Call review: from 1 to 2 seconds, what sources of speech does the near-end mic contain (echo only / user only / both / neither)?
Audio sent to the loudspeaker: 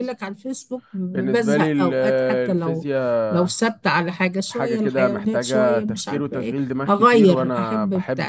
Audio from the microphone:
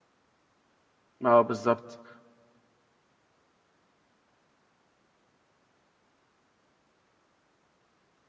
user only